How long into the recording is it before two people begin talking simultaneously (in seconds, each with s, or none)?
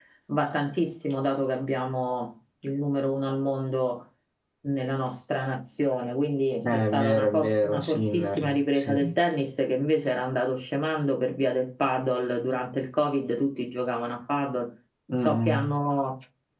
6.9 s